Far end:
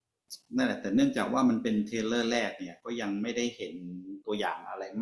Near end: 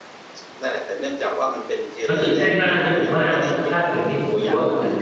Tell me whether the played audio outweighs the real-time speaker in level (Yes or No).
No